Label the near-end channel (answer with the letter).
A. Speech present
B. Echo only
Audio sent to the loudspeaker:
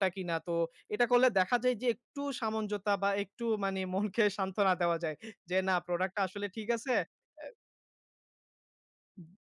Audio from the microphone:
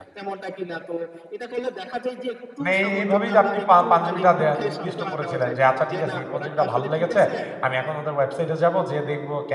A